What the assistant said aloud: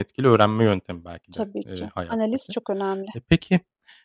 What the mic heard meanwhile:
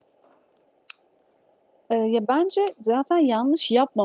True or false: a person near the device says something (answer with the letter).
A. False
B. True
B